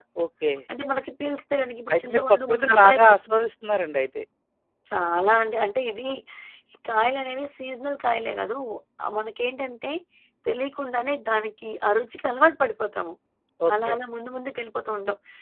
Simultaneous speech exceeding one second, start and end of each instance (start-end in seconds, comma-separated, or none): 1.9-3.5